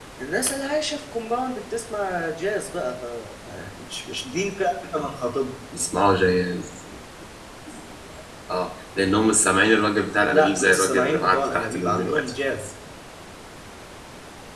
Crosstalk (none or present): present